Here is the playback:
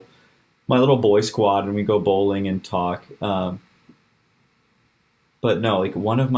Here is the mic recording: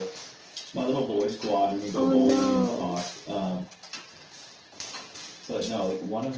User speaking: Yes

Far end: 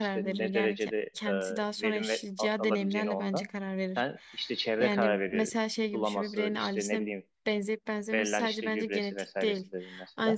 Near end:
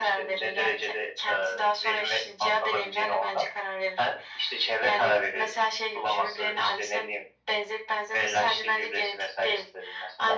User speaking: No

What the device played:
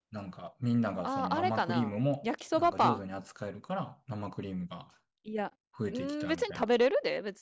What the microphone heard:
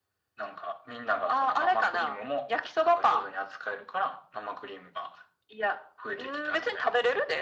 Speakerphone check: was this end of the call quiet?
Yes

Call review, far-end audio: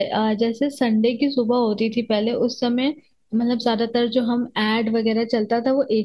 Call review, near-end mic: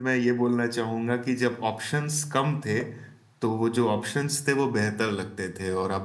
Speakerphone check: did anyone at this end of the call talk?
Yes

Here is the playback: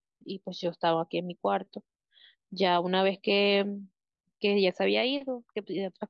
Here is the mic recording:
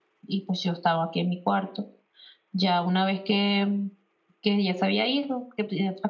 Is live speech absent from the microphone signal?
Yes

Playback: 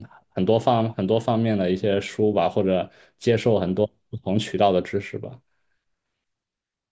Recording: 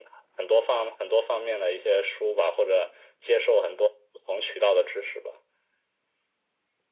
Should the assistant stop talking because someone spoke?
No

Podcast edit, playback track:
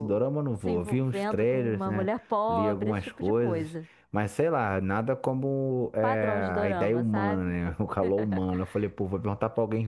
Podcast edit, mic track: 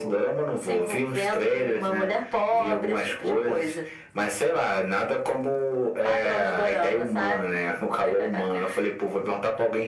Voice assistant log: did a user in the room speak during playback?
No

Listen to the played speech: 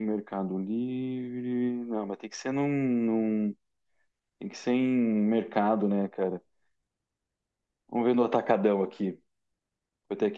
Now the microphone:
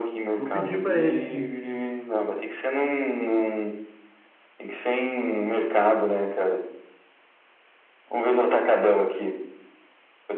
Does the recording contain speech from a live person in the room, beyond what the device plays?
Yes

